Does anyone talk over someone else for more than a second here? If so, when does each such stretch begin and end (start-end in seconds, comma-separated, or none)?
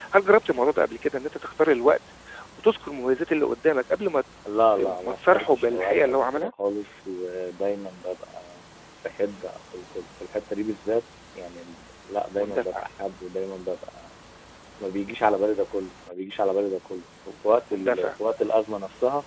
4.8-6.5